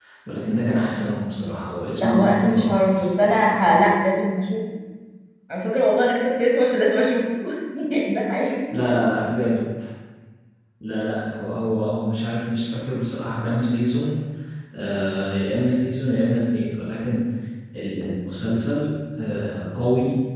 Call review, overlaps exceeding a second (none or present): present